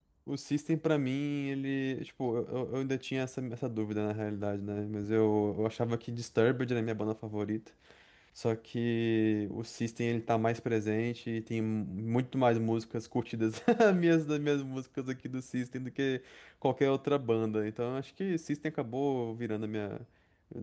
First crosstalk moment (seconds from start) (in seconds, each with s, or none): none